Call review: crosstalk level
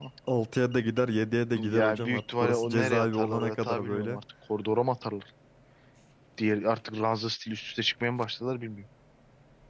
present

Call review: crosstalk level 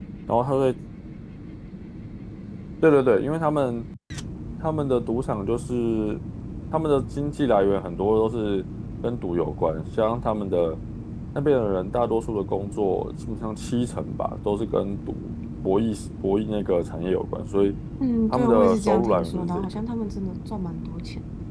present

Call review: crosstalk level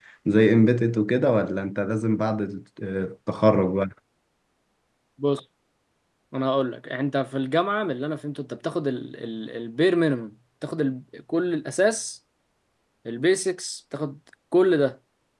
none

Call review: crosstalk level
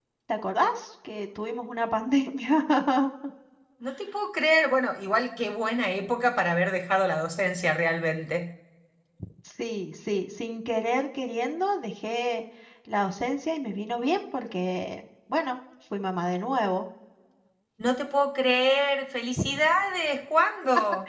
none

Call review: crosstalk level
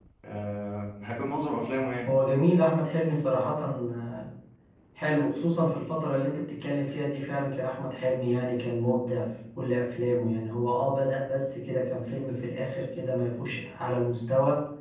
none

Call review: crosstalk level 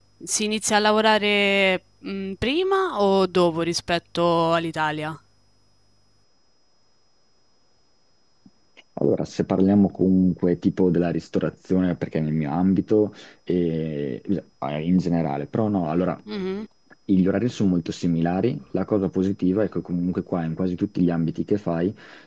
none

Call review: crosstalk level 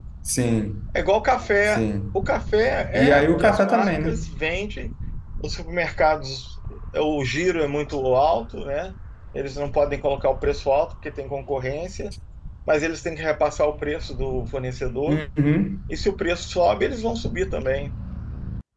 present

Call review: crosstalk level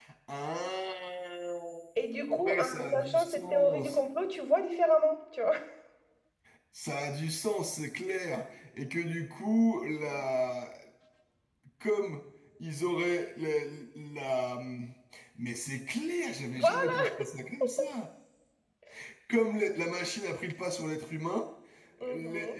present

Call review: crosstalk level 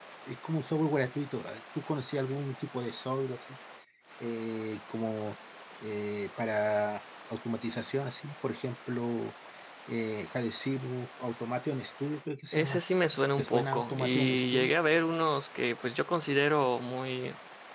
present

